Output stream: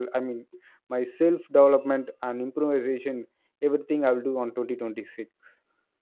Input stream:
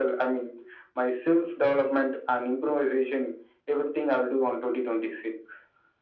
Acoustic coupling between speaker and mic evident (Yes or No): Yes